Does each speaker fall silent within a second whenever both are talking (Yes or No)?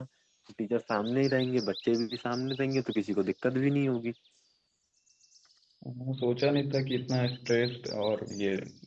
Yes